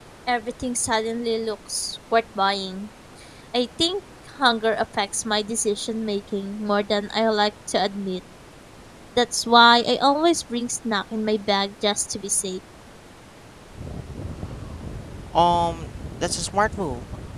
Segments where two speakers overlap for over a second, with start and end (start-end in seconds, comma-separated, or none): none